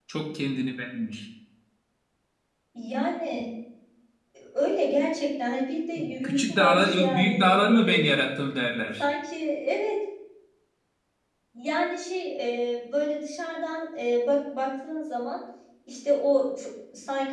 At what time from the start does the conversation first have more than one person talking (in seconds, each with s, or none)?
6.2 s